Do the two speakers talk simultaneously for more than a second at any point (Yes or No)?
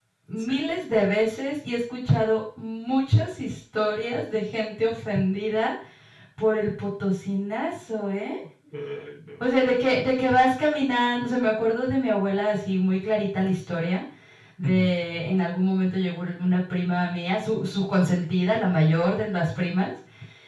No